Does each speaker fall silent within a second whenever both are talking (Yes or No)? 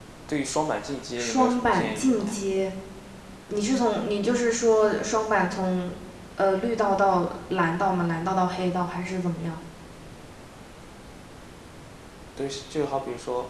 No